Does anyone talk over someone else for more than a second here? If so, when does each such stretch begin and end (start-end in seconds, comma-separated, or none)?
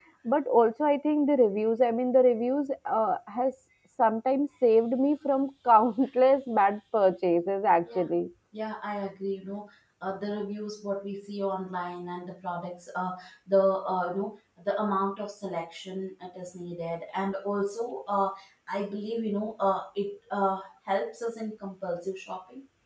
none